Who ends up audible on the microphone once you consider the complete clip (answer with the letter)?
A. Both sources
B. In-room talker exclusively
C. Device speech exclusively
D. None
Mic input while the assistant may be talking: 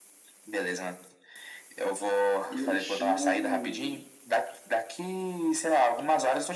A